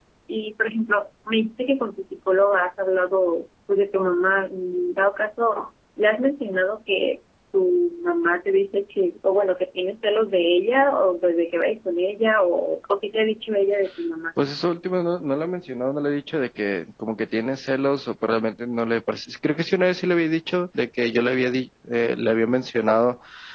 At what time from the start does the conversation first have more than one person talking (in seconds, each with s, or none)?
none